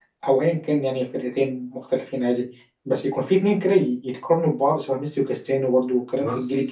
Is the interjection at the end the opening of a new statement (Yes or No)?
Yes